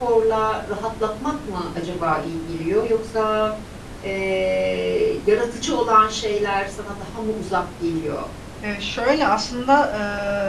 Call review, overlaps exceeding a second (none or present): none